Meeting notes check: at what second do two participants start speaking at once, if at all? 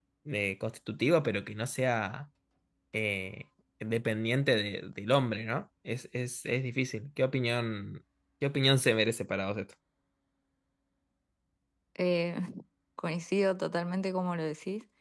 none

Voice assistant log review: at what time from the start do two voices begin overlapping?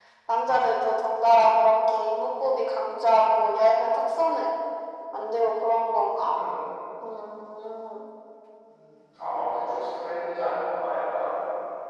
none

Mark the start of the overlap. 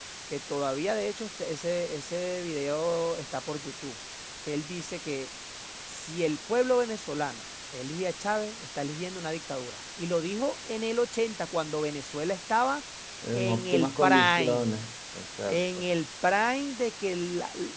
13.3 s

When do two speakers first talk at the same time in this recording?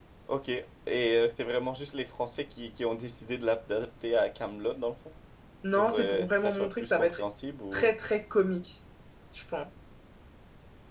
5.7 s

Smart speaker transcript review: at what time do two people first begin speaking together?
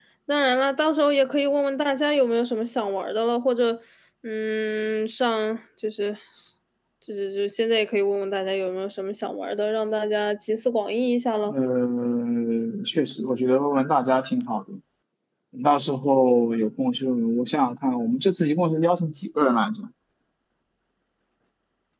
none

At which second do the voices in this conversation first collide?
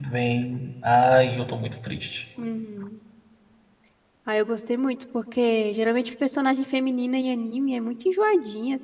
none

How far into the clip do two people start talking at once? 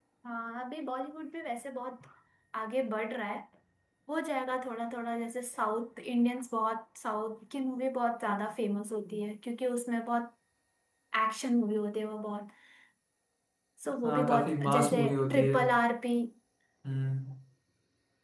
14.0 s

